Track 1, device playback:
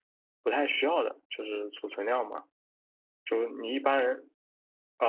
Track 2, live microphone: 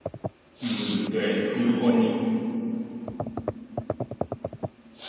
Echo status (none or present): none